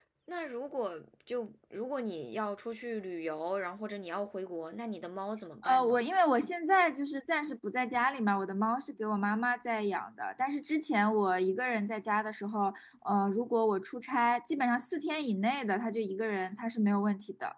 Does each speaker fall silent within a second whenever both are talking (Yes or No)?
Yes